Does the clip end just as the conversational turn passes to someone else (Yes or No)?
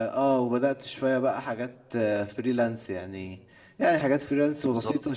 No